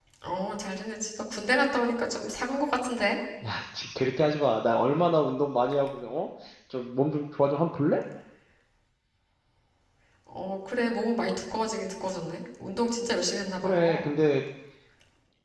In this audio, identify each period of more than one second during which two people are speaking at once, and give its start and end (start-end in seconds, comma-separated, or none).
none